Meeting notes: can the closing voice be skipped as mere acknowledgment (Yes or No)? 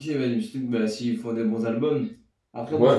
Yes